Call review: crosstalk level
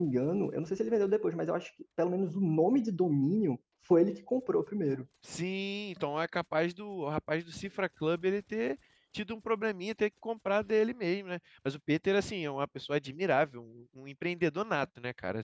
none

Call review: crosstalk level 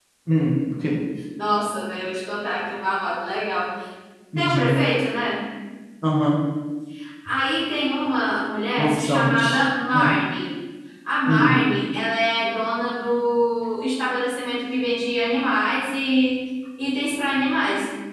present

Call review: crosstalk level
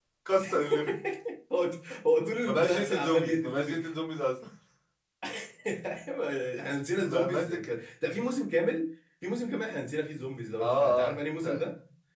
present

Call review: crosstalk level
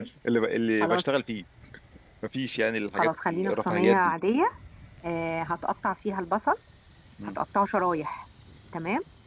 present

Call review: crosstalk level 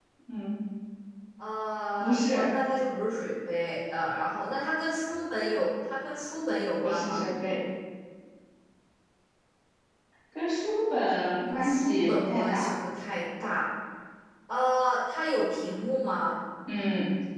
present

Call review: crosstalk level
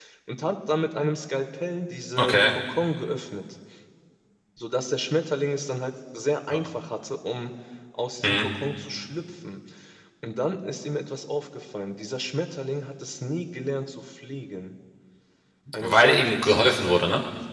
present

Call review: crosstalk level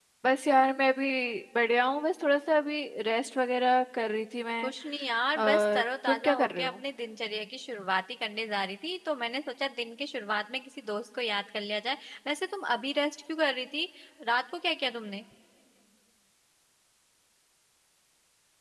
present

